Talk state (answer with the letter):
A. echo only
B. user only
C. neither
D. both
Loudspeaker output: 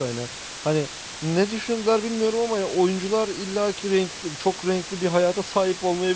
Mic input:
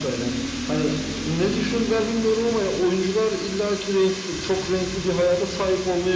A